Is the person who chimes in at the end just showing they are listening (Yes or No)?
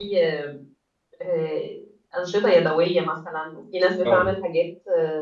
Yes